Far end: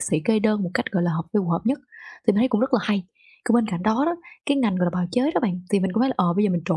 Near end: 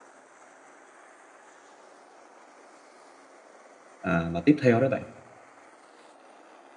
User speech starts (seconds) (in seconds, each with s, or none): 4.0 s